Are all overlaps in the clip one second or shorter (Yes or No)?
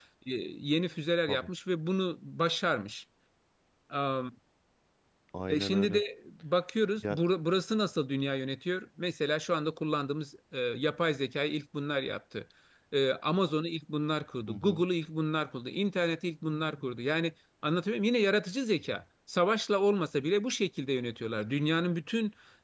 Yes